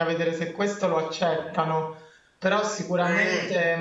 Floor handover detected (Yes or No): No